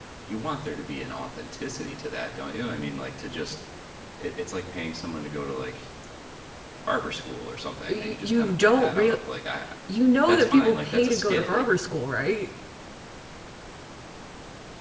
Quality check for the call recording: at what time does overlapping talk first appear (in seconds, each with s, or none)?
7.9 s